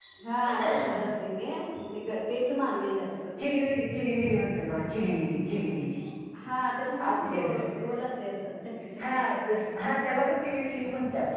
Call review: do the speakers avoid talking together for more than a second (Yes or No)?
Yes